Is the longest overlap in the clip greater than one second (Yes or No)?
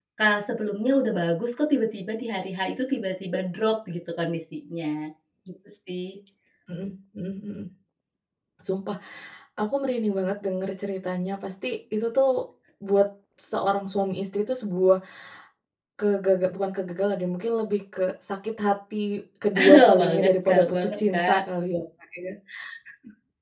Yes